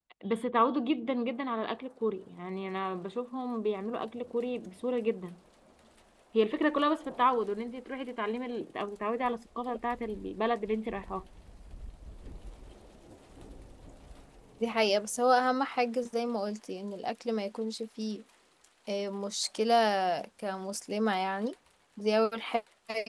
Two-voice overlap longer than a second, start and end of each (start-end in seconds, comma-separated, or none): none